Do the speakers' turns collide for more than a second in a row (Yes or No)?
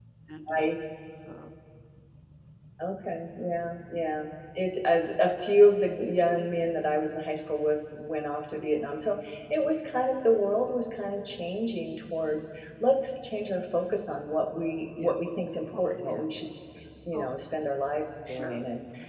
No